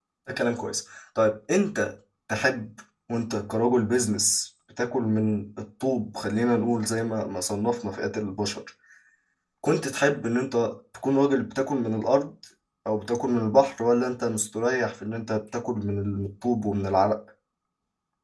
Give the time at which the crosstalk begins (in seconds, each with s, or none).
none